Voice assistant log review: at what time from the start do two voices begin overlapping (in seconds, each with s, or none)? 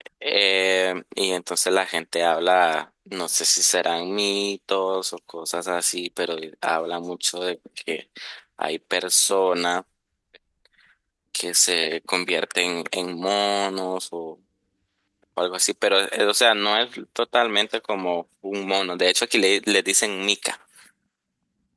none